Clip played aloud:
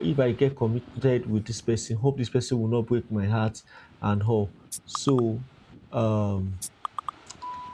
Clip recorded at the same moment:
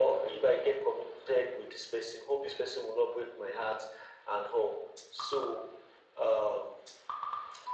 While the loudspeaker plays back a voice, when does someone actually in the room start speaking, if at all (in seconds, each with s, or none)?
none